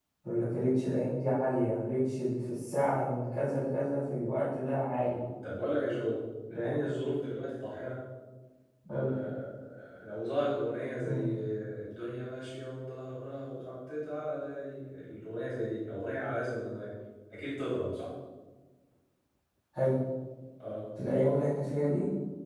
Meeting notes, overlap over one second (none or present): none